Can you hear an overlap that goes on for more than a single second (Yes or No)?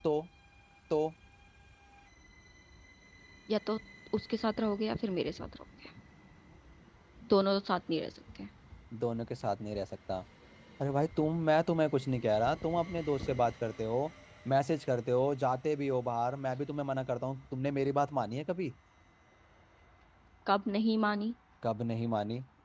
No